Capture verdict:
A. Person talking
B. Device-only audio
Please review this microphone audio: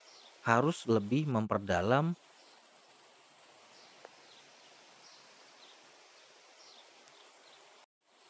A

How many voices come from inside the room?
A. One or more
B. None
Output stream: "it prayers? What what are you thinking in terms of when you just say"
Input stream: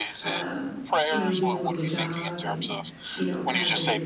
A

